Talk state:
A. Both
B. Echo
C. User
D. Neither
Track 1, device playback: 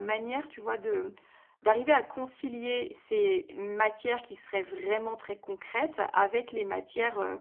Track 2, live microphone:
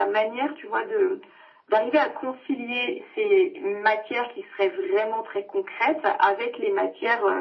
B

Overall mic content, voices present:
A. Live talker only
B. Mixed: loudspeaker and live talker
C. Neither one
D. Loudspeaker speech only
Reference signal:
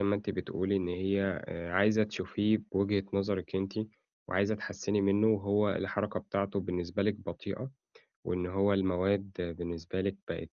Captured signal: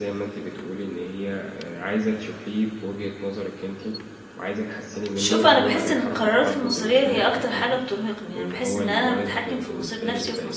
B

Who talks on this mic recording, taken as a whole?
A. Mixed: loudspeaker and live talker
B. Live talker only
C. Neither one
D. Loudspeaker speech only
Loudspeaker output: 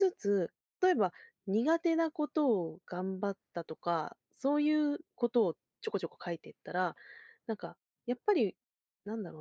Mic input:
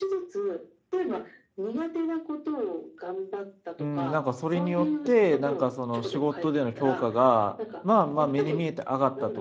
A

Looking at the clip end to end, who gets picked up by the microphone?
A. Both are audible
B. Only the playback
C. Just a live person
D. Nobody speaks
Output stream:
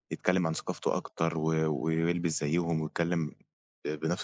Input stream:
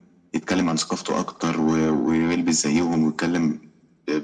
B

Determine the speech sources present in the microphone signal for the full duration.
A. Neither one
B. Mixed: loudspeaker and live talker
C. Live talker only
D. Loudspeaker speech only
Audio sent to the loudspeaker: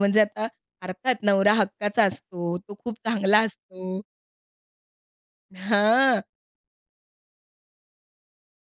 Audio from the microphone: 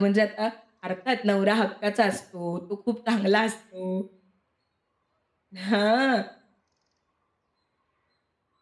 D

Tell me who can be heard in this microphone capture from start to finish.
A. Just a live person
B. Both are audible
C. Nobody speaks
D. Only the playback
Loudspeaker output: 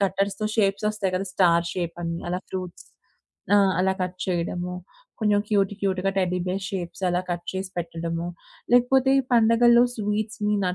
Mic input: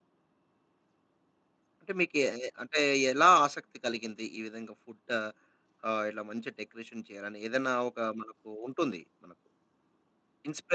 A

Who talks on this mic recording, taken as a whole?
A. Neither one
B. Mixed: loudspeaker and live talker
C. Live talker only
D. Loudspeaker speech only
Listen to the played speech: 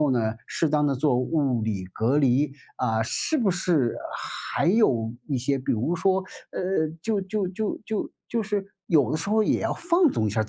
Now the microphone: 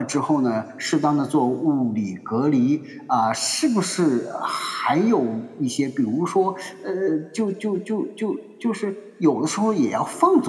D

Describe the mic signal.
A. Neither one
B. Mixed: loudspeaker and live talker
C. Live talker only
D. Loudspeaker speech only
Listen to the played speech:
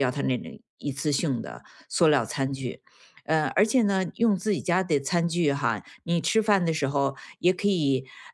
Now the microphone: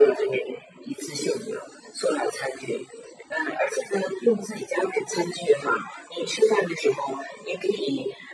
D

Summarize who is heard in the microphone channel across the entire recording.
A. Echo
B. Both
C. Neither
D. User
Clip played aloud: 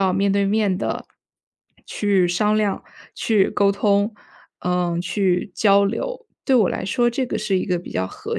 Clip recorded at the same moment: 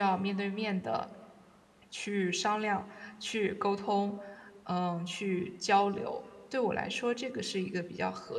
A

